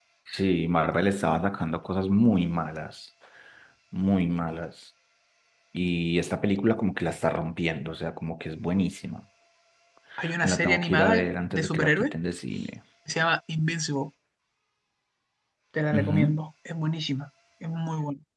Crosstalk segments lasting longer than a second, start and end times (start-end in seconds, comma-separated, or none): 10.4-12.1